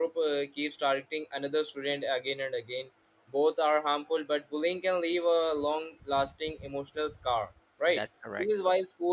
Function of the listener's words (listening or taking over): listening